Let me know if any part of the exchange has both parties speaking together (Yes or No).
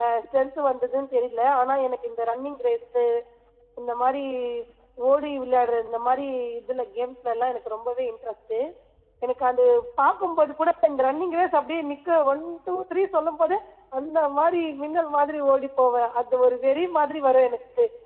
No